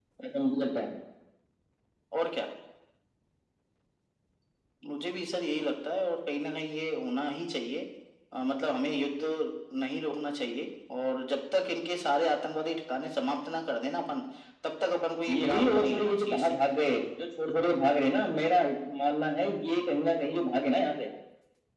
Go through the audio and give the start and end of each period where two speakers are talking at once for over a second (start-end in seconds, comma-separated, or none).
15.3-16.8